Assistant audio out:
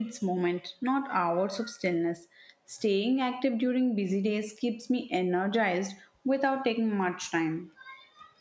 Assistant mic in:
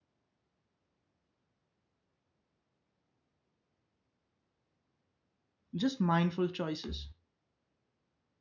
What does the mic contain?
user only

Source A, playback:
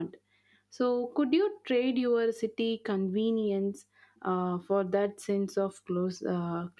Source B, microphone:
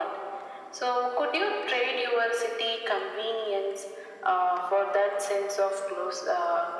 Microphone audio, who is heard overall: echo only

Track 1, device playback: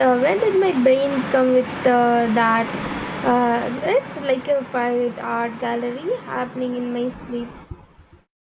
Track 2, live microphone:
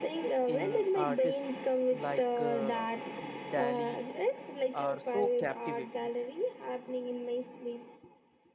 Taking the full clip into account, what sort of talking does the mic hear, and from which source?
both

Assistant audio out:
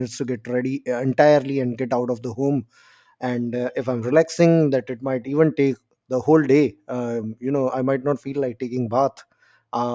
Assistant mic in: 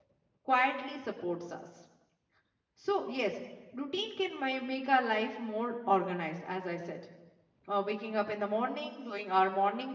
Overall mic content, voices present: user only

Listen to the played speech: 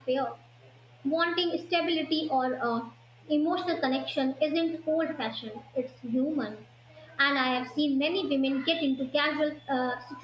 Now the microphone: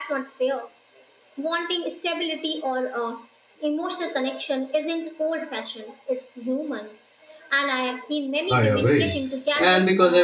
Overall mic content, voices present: both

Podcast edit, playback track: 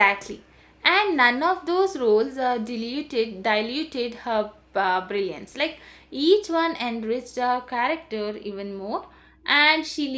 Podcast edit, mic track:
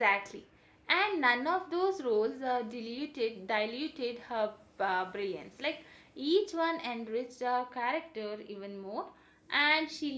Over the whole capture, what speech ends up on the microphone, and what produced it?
echo only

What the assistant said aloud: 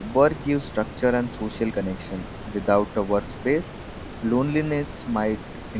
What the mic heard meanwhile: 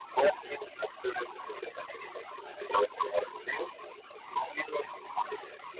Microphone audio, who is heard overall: echo only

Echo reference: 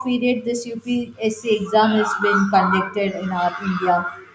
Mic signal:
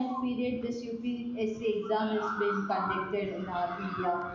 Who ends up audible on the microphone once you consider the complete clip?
echo only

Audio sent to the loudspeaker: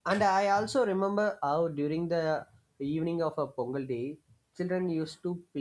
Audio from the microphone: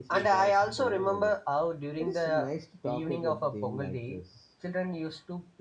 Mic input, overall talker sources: both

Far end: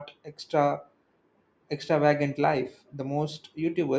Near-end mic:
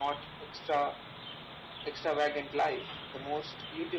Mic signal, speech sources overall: echo only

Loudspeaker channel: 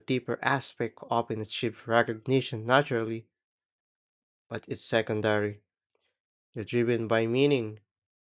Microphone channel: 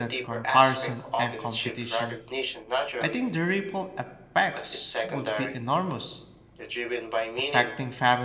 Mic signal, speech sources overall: both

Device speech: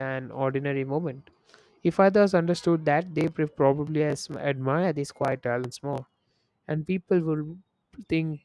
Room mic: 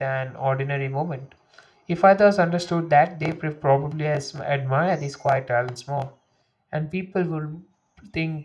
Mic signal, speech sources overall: echo only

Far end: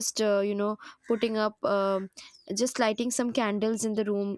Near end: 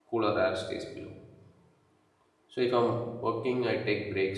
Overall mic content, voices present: user only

